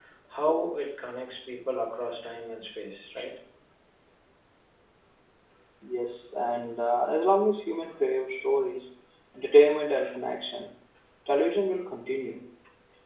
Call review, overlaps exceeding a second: none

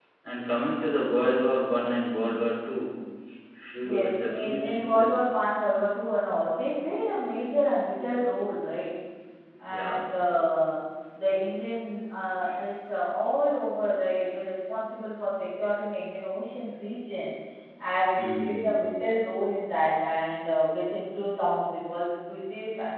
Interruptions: present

